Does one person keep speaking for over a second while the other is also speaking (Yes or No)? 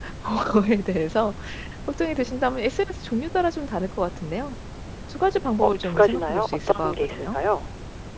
Yes